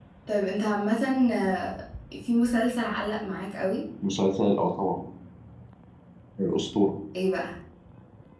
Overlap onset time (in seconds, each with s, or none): none